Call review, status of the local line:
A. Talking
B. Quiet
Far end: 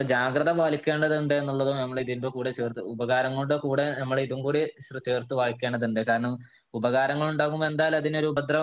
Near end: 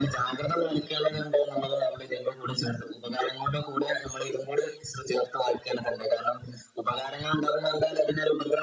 B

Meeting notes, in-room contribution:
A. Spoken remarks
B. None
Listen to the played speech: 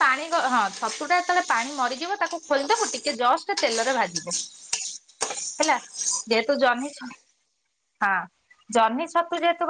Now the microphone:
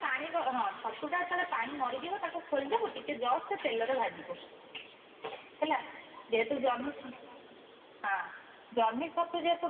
B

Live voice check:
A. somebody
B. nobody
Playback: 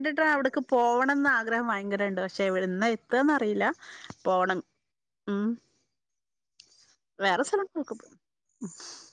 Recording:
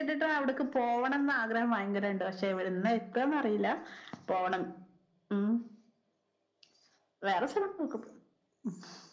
B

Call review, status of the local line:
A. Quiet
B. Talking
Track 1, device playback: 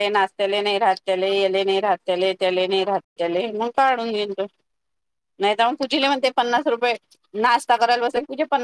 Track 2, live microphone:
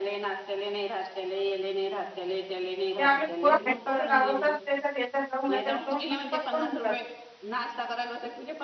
B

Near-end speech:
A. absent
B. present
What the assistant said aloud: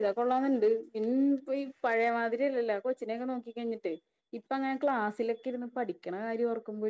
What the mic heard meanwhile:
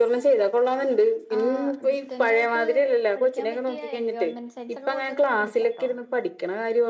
B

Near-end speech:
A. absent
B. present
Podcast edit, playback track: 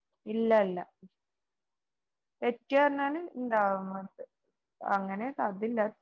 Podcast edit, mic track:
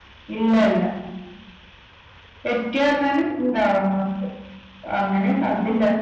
A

